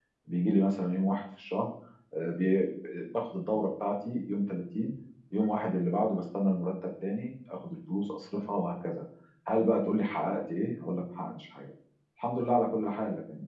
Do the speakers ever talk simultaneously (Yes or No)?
No